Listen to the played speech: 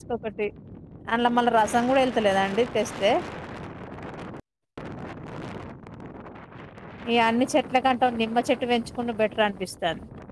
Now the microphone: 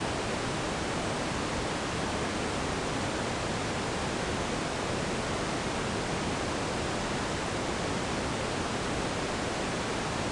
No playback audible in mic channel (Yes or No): Yes